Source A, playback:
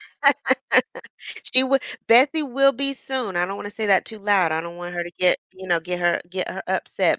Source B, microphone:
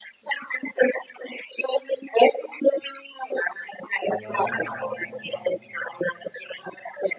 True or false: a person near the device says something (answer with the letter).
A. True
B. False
A